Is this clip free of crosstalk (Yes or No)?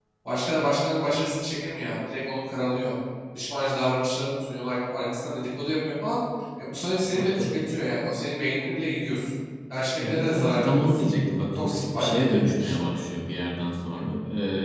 No